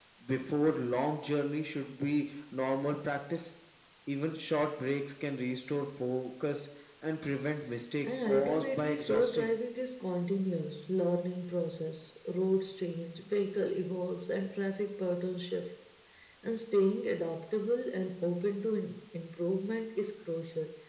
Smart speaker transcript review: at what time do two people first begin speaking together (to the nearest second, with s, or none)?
8 s